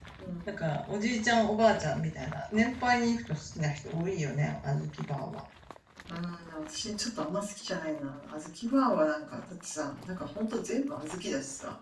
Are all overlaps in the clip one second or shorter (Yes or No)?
Yes